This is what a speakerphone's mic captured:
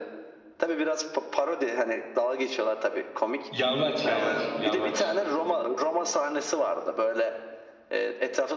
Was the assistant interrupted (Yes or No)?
Yes